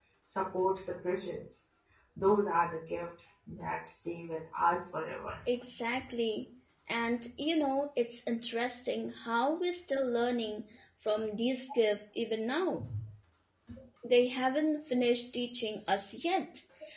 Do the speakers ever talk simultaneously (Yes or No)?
No